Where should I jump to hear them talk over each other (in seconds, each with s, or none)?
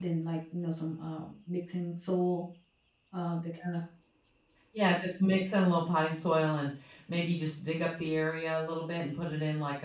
none